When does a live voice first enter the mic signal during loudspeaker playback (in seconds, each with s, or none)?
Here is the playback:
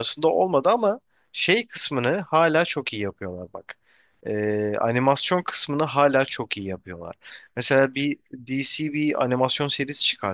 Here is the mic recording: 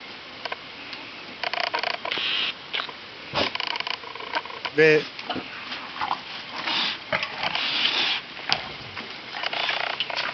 4.7 s